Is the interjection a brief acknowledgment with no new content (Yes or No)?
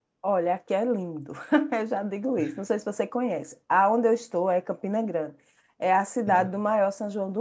Yes